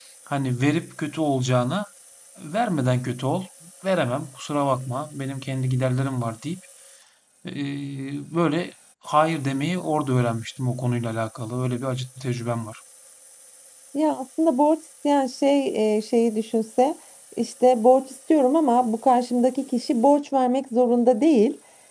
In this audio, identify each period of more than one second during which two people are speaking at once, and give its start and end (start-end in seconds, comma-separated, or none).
none